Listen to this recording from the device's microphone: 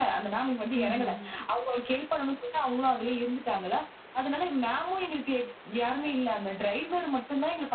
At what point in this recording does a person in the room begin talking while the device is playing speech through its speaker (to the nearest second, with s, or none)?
1 s